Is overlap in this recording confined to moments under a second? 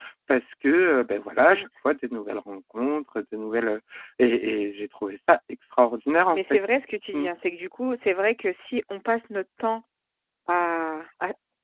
Yes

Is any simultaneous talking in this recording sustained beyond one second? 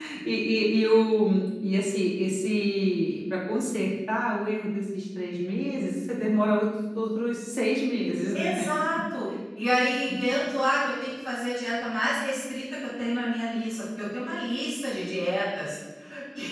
No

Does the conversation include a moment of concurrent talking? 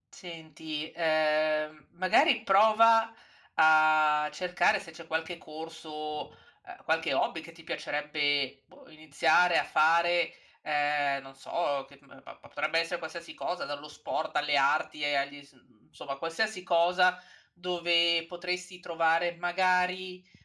No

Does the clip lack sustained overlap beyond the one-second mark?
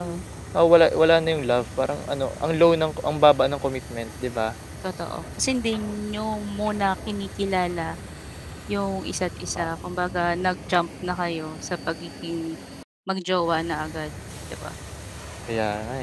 Yes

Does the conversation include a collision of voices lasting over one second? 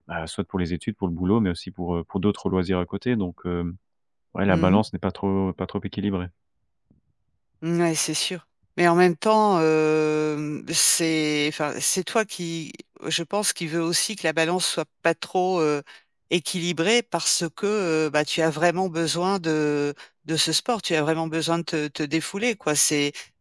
No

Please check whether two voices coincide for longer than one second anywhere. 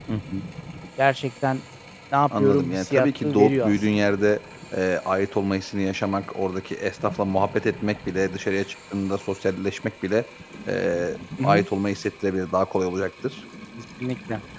Yes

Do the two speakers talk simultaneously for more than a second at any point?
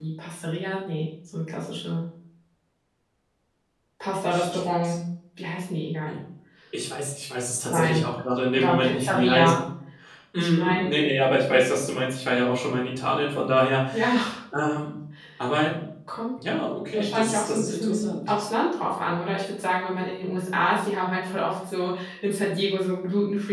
Yes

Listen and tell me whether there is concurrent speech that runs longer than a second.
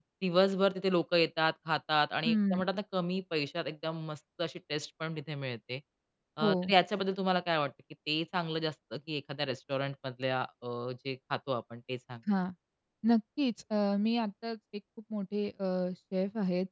No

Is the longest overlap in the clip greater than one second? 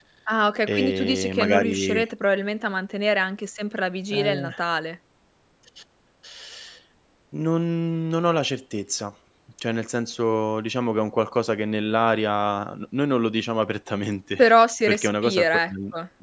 Yes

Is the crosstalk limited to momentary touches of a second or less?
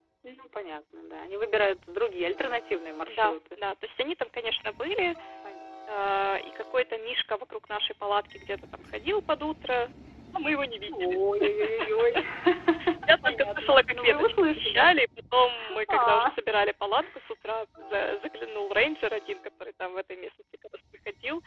No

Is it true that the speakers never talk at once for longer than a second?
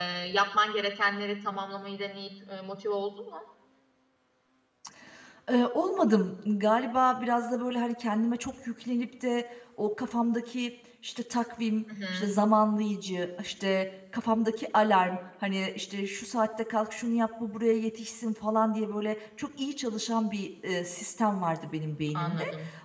Yes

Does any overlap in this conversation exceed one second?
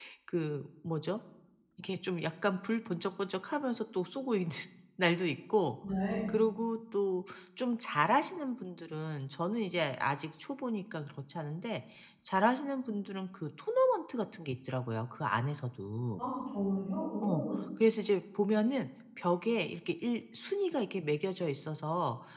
No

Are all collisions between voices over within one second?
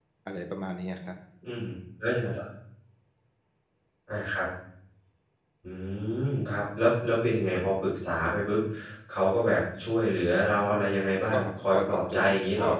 No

